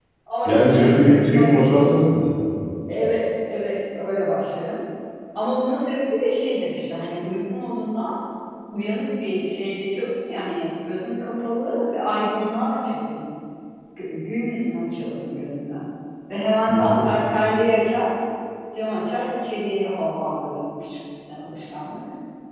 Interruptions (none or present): present